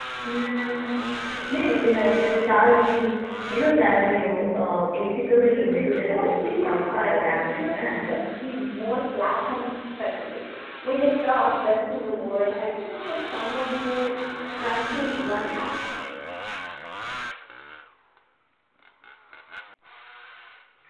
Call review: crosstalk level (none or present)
present